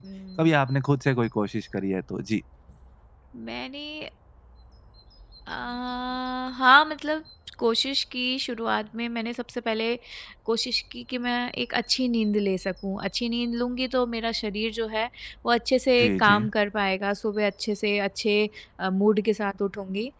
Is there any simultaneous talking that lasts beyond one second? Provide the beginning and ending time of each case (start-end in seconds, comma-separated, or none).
none